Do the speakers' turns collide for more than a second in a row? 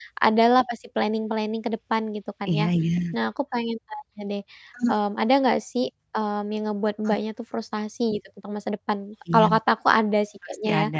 No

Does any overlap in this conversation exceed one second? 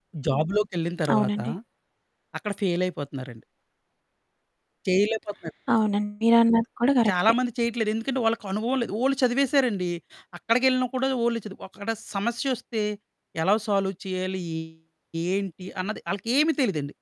No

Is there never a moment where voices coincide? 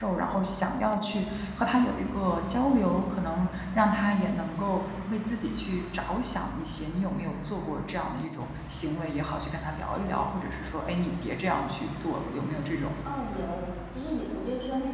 Yes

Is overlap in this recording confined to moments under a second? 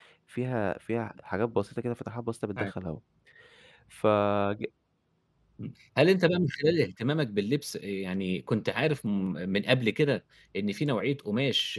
Yes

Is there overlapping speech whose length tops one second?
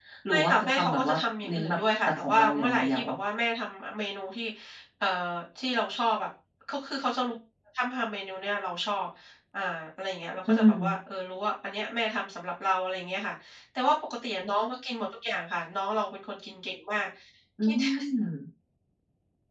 Yes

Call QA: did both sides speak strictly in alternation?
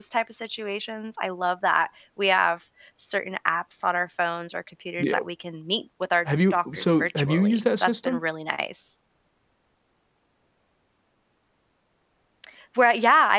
No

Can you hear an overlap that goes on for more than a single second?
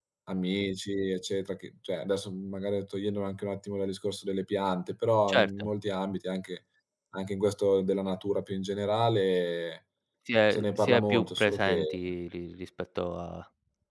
Yes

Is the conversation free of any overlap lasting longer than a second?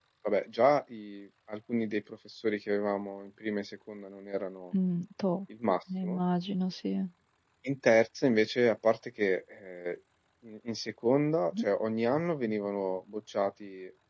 Yes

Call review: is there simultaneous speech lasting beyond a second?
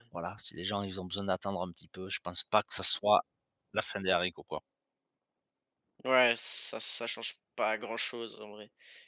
No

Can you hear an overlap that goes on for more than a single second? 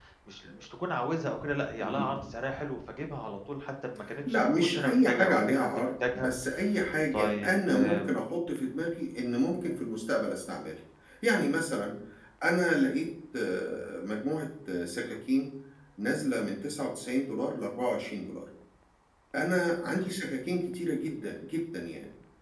Yes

